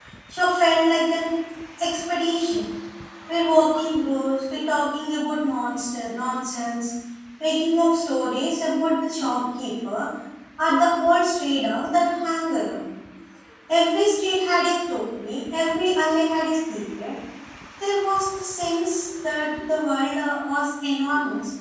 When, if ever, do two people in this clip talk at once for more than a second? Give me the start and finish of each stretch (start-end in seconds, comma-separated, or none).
none